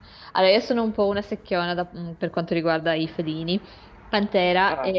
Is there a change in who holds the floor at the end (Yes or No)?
No